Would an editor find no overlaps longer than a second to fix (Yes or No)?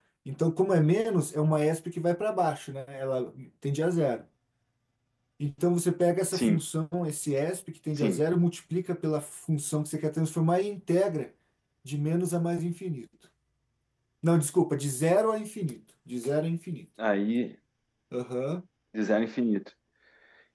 Yes